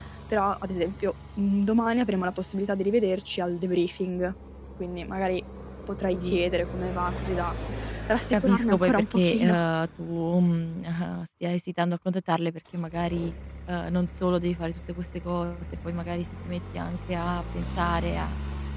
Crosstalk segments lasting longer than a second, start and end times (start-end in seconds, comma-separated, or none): 8.3-9.6